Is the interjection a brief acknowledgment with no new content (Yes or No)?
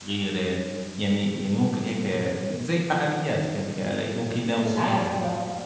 No